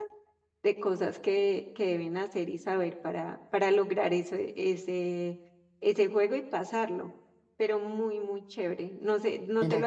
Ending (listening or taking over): taking over